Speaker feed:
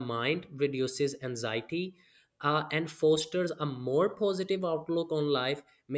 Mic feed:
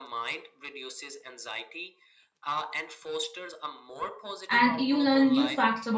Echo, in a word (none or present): present